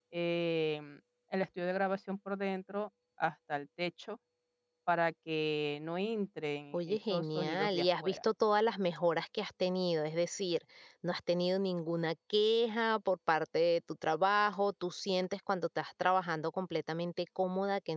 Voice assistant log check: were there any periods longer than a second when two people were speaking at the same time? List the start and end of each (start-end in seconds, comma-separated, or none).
6.7-8.2